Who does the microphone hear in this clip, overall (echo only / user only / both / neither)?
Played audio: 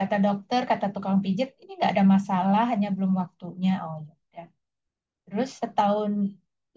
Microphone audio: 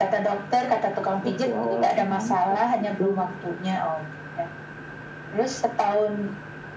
both